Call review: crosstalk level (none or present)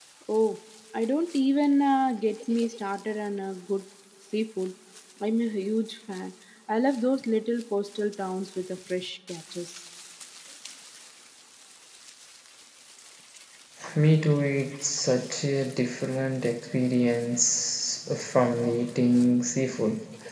none